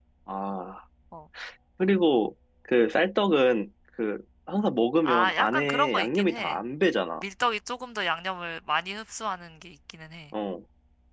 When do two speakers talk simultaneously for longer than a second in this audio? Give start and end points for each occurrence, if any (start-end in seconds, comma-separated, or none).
5.0-6.6